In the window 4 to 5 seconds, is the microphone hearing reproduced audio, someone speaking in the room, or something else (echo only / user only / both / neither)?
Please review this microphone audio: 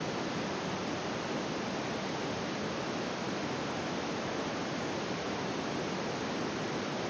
neither